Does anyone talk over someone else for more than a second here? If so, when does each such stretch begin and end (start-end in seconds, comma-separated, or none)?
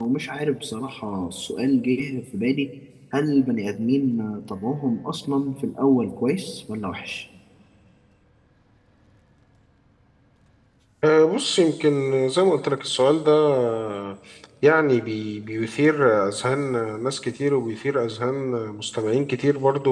none